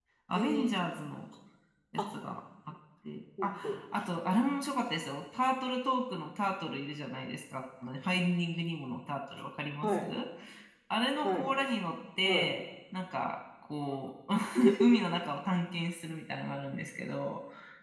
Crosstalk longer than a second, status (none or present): none